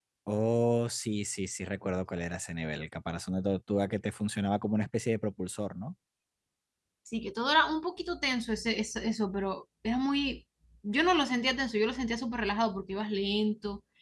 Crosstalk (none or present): none